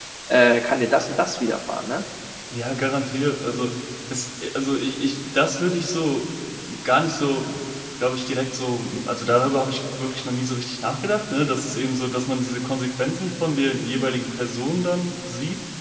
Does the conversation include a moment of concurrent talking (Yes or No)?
No